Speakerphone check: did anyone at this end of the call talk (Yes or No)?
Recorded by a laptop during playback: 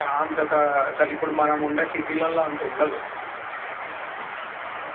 No